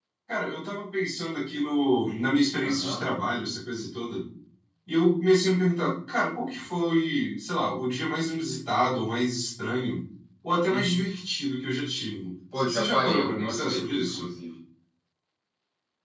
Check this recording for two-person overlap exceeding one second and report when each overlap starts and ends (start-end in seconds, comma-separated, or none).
12.6-14.3